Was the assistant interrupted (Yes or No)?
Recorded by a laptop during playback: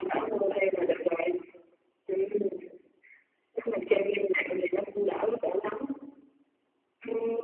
No